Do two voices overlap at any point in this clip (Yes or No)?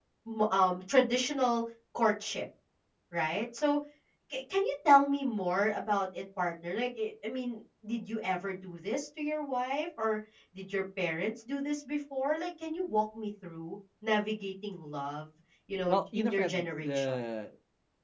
Yes